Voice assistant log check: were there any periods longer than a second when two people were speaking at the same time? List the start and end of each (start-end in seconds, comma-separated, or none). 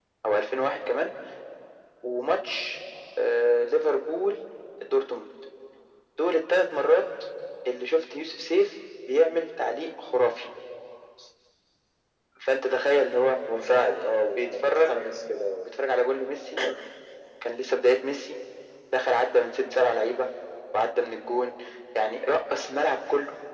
none